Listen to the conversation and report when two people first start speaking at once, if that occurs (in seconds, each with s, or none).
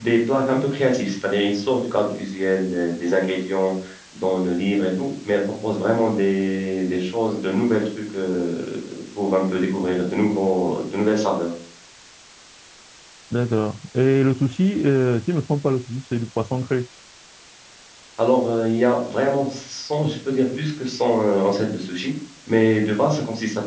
none